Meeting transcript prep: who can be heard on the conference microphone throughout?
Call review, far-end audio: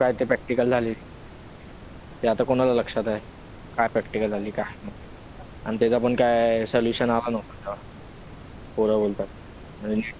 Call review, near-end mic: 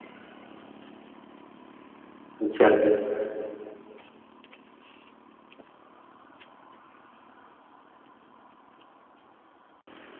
user only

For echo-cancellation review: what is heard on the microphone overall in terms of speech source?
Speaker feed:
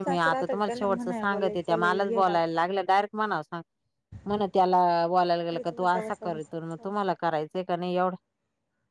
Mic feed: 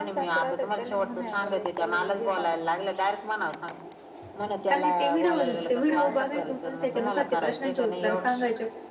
both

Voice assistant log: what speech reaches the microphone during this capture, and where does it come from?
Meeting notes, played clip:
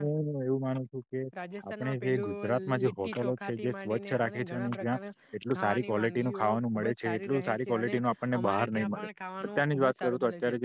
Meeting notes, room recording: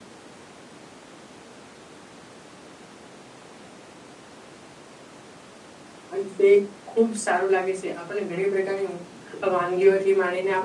user only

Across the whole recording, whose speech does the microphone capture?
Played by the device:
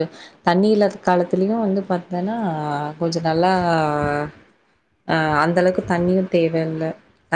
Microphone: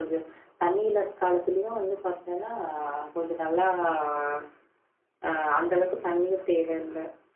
echo only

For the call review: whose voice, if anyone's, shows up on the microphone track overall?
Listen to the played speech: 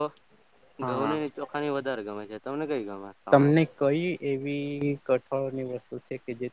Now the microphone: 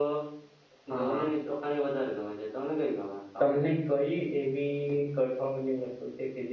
echo only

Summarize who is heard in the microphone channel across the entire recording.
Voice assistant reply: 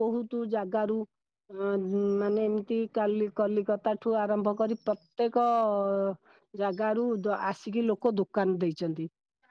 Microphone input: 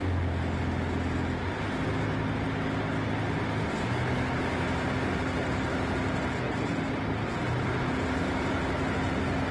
neither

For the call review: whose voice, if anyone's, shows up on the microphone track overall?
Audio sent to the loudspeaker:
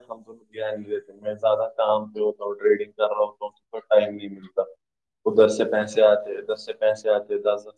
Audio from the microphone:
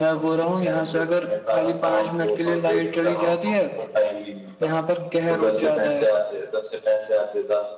both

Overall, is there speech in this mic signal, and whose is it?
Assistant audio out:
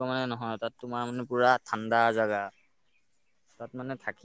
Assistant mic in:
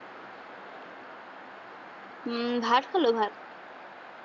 user only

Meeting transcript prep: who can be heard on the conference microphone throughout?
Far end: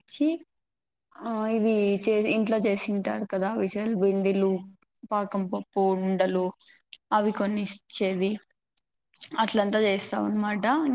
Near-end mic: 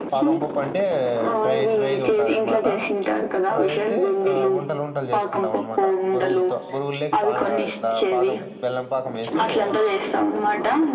both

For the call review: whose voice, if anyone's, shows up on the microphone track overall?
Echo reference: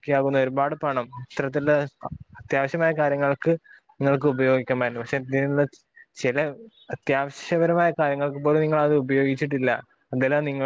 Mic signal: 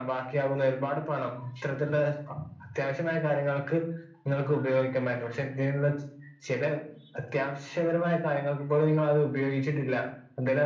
echo only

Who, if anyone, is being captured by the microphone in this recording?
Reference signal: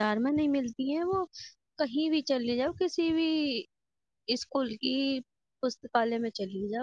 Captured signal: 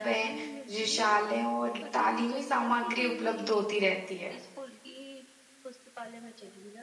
both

